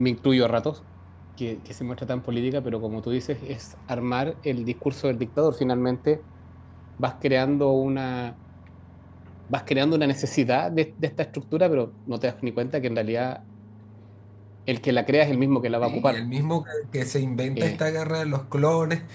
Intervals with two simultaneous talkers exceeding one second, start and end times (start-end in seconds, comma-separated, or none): none